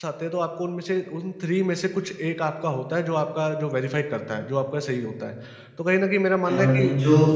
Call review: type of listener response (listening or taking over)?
taking over